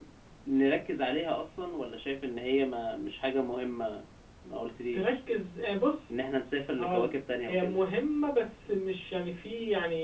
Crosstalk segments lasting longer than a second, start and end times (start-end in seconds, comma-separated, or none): none